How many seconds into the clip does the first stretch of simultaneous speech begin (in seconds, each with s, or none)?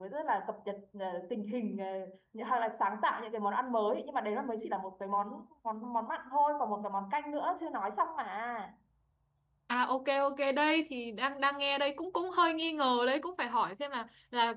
none